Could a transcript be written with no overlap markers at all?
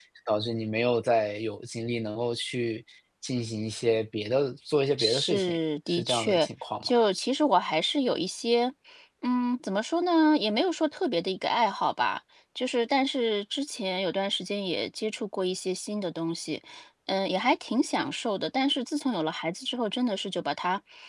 No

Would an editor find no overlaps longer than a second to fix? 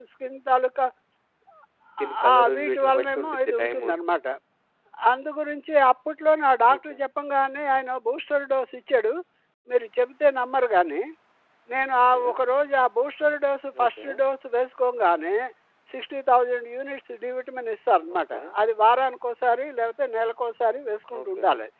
No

